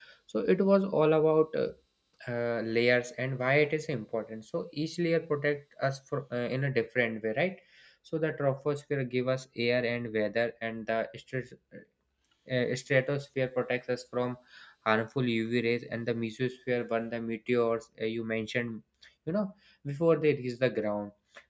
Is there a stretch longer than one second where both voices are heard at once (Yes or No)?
No